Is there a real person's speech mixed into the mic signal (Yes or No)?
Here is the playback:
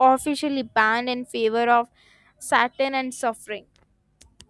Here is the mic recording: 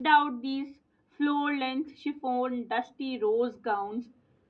Yes